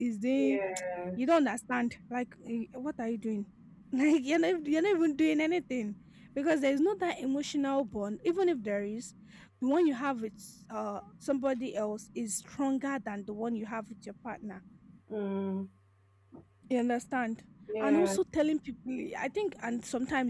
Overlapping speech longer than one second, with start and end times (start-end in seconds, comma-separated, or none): none